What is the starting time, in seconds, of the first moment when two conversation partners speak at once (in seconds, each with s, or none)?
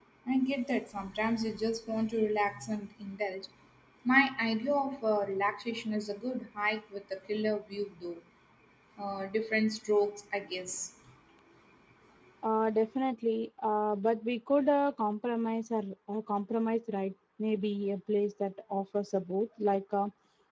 none